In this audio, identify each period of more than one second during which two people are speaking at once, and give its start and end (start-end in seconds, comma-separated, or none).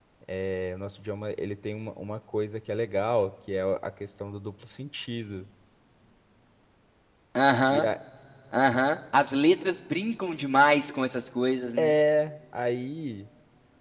none